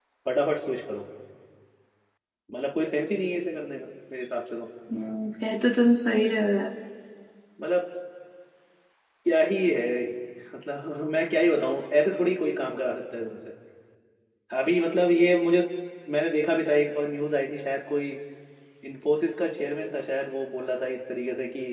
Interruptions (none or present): none